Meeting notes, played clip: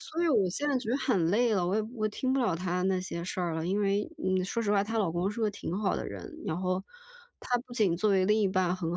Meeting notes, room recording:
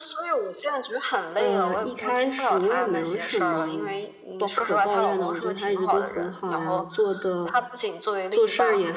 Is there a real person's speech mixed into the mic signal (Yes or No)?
Yes